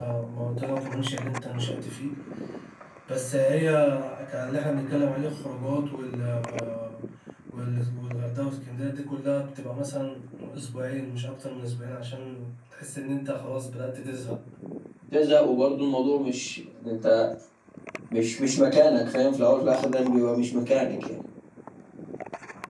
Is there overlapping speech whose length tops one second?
No

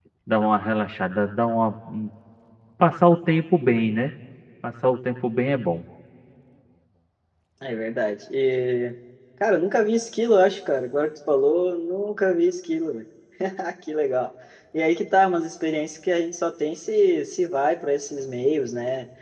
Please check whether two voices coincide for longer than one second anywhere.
No

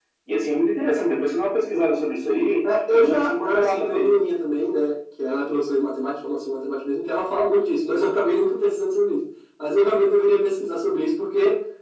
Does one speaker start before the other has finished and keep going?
Yes, from 2.6 s

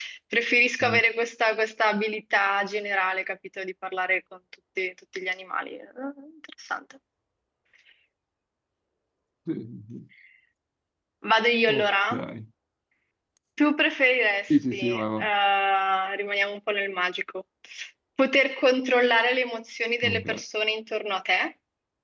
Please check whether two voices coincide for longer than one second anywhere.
No

